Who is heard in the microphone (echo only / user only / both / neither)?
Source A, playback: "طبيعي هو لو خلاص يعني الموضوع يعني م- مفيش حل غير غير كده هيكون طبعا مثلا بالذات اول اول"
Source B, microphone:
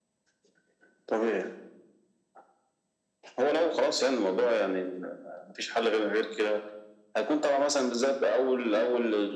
echo only